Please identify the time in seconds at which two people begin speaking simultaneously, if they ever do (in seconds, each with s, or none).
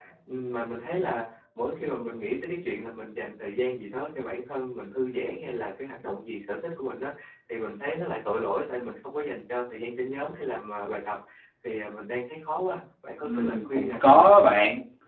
13.2 s